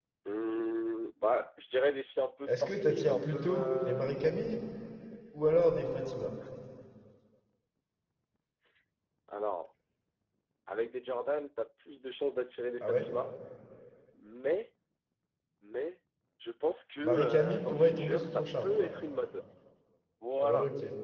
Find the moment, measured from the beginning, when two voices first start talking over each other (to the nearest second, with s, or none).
2 s